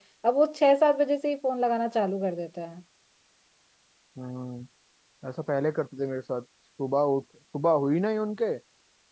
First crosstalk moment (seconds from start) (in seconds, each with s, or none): none